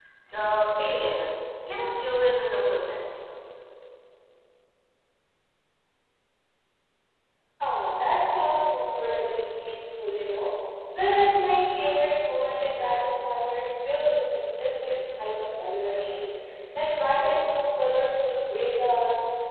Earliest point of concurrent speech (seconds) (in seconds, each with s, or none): none